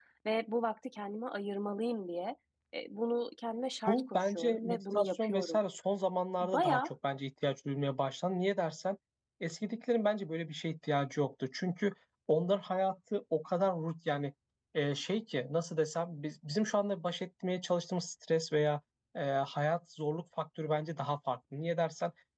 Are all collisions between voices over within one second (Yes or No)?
No